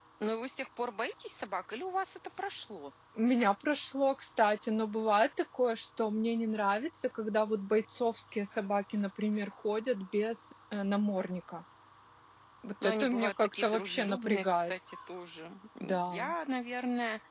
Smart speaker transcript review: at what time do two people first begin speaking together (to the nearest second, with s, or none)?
13 s